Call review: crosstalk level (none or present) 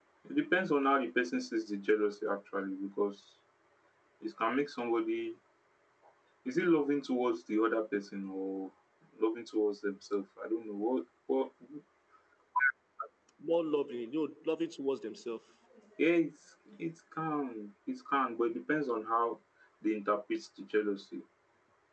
none